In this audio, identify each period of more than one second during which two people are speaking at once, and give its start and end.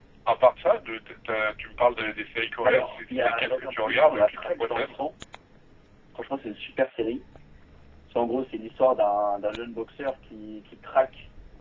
2.6-5.0

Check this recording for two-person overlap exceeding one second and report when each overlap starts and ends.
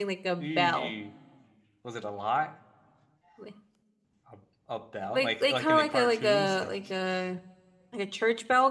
5.1-6.7

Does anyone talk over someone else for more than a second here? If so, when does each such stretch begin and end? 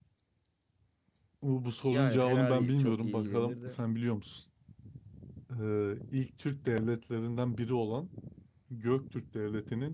1.9-3.8

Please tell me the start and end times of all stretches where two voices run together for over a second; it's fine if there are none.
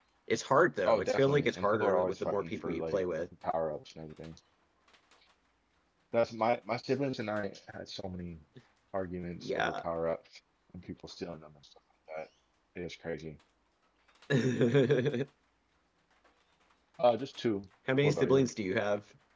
0.8-3.0

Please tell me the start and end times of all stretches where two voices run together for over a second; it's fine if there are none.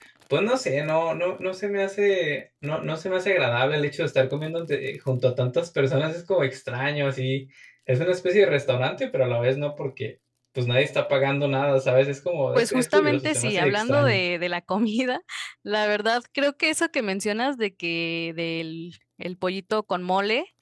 12.5-14.2

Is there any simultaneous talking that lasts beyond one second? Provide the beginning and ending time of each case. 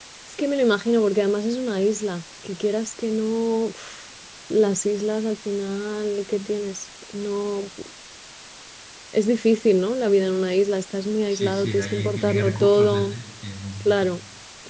11.3-13.1

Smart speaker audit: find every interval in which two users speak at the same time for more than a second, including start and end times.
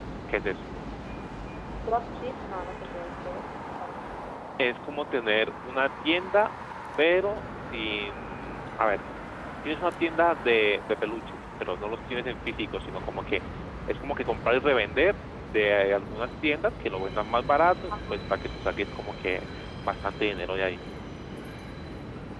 none

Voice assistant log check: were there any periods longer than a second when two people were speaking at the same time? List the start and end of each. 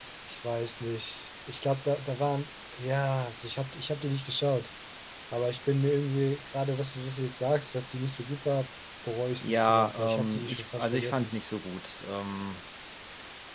9.4-11.3

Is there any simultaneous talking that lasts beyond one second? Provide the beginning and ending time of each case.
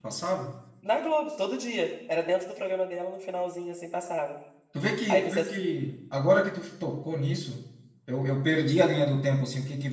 none

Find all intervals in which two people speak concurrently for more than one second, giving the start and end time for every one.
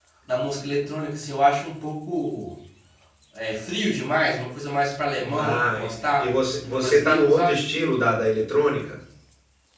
6.2-7.6

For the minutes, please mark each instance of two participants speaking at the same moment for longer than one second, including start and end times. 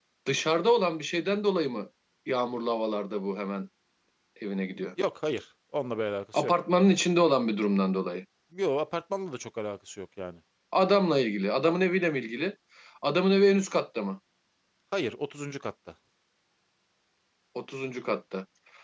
none

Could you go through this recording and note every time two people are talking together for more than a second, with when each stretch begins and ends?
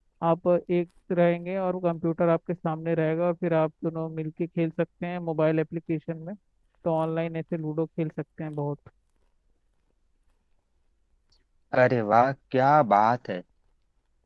none

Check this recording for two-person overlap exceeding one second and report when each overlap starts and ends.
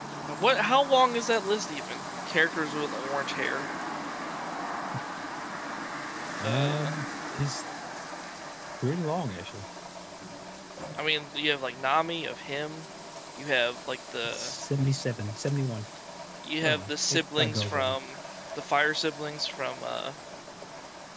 16.6-18.0

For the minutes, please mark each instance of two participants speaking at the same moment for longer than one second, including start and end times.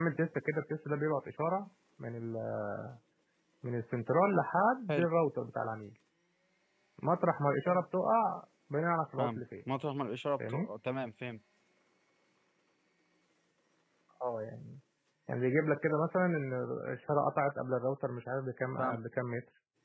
none

